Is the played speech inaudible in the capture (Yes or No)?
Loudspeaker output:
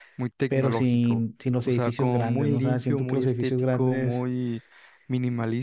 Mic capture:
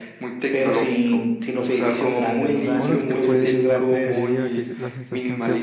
No